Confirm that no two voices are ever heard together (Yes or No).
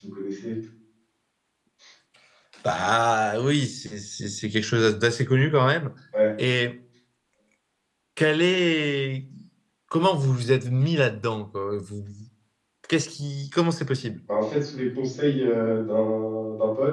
Yes